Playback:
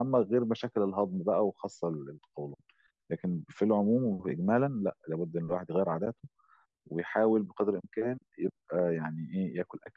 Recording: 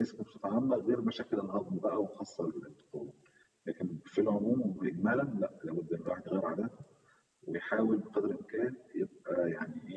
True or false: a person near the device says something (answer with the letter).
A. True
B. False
B